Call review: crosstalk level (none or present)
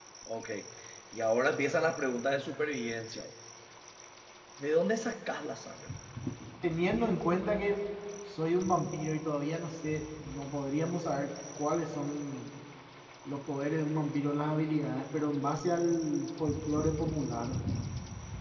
none